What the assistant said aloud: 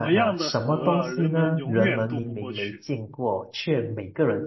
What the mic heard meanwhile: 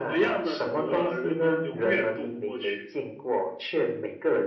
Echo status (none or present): present